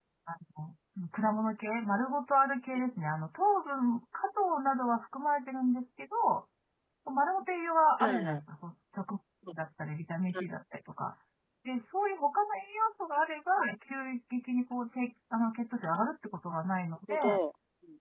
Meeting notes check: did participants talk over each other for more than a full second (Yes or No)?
No